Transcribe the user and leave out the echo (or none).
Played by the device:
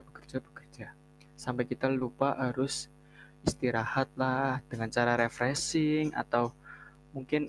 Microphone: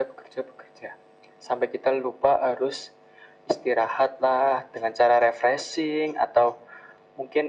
none